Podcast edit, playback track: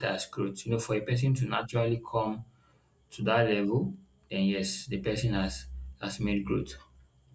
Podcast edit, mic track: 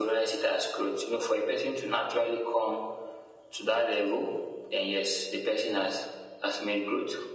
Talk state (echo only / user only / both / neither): echo only